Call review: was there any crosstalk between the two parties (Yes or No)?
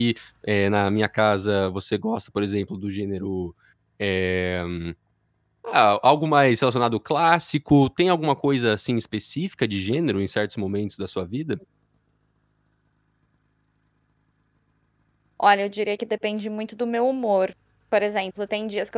No